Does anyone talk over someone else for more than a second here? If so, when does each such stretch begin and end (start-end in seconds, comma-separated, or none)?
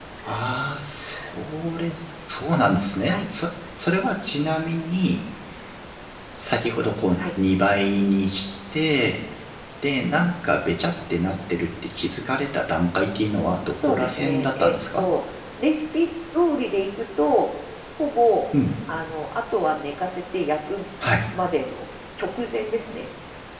13.8-15.1